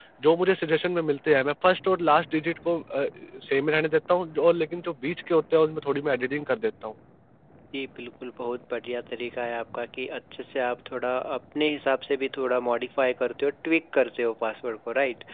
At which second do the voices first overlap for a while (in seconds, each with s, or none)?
none